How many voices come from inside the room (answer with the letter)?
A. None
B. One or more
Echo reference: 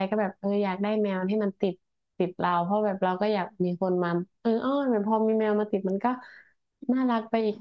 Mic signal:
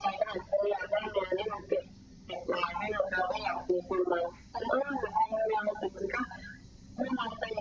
A